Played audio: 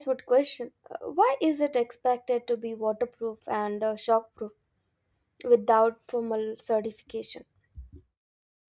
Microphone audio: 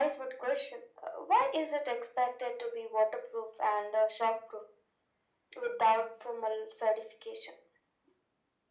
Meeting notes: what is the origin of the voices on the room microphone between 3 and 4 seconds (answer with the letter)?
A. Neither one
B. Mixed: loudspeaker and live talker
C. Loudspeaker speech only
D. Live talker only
C